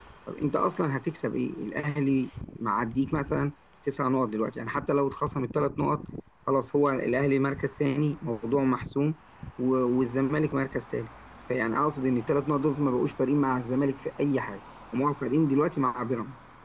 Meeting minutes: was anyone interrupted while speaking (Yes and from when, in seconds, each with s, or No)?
No